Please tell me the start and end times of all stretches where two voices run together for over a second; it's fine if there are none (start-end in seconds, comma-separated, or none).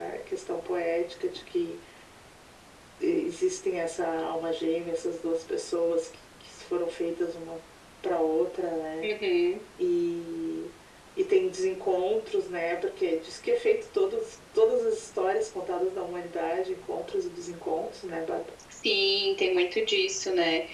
none